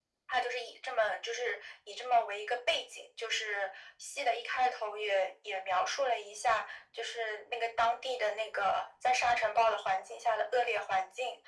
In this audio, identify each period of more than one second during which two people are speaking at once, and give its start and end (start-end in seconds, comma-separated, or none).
none